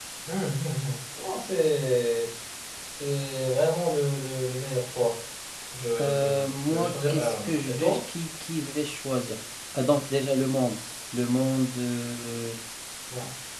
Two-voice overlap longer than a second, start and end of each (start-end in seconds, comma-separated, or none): 6.0-8.0